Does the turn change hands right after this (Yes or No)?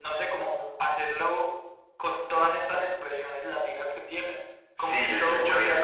Yes